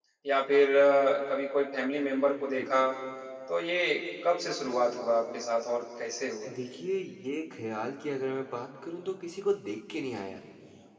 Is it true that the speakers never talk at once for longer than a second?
Yes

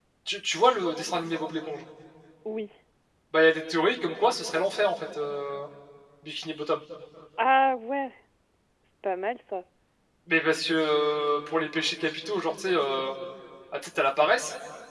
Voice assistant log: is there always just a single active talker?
Yes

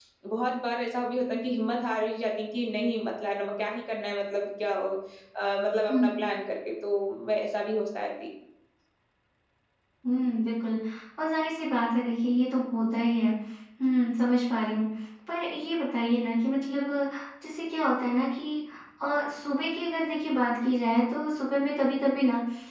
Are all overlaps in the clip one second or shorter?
Yes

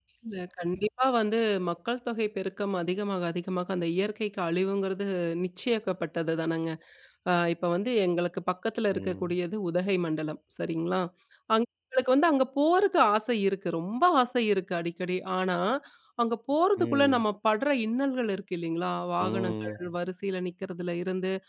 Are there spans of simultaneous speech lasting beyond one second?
No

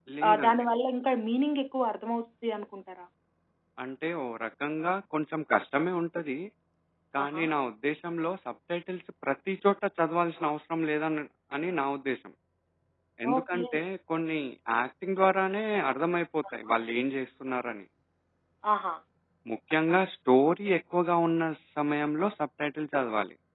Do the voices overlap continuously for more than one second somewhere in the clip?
No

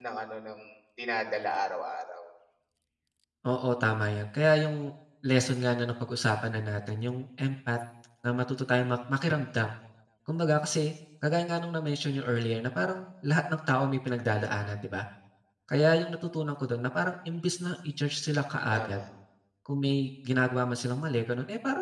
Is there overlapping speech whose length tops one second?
No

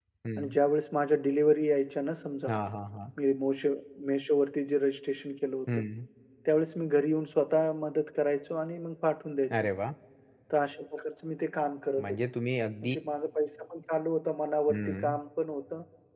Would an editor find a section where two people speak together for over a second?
No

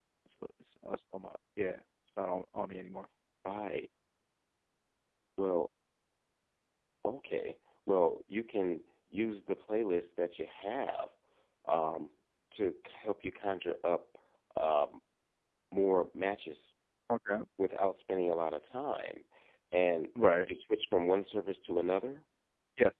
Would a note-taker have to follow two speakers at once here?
No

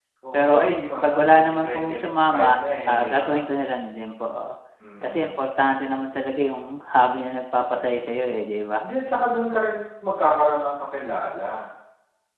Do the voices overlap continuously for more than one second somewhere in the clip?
Yes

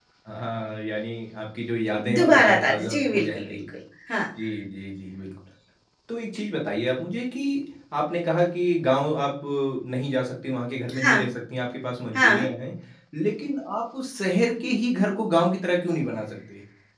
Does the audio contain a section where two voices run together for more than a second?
Yes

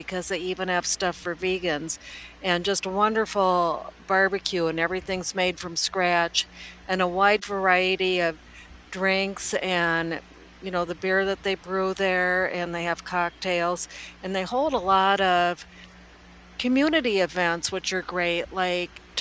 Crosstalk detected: No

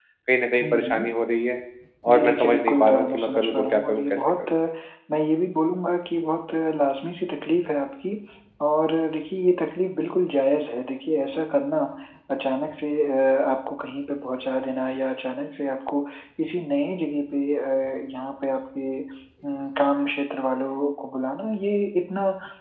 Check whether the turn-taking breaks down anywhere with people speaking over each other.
Yes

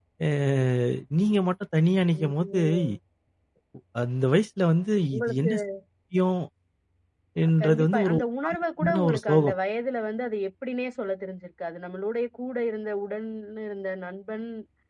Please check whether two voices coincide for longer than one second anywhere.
Yes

